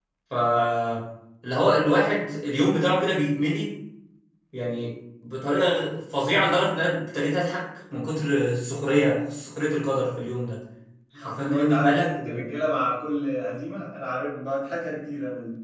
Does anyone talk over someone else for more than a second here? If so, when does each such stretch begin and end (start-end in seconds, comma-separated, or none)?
11.2-12.4